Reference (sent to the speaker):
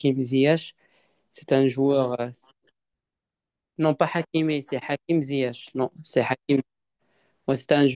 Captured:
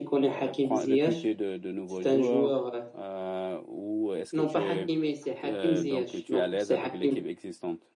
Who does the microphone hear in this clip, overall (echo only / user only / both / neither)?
both